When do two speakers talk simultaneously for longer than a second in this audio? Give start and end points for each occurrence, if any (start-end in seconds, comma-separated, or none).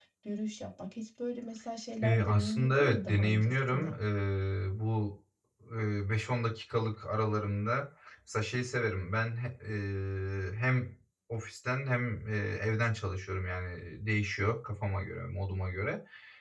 2.0-3.9